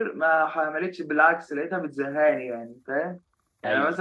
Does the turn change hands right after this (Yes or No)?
No